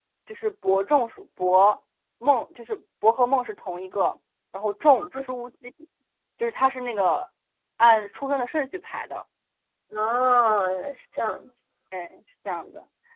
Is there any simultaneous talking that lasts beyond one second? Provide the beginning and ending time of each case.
none

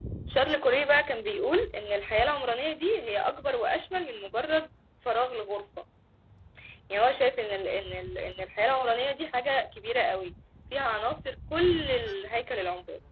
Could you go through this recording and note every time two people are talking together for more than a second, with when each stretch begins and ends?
none

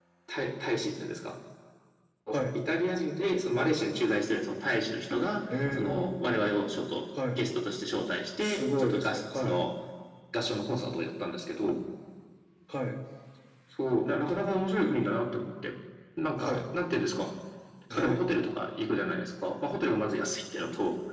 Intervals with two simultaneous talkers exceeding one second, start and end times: 8.4-9.6

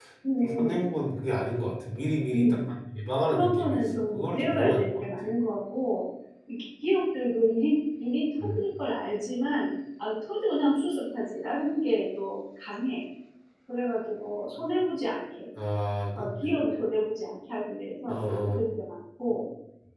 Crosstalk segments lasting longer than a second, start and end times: 3.2-5.0

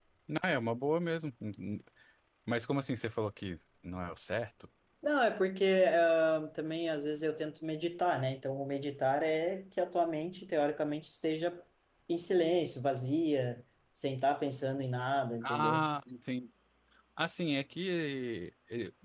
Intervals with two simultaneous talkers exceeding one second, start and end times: none

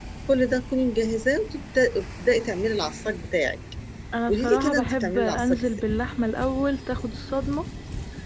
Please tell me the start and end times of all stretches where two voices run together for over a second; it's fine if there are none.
4.3-5.7

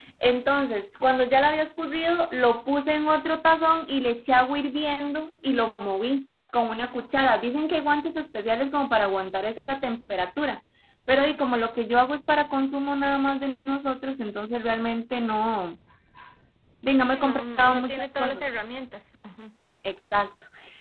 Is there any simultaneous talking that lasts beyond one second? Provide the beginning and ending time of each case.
17.1-18.4

